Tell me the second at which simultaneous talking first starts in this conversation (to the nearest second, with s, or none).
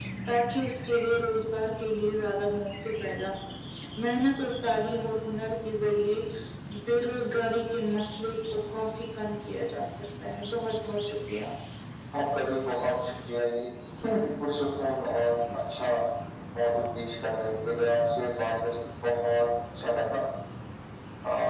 none